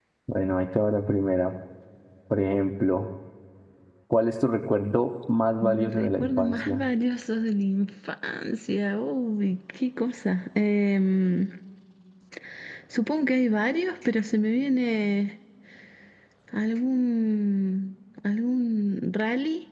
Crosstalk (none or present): present